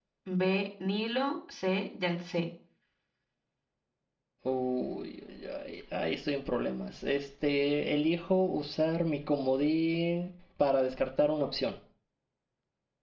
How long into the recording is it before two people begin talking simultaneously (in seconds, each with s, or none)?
none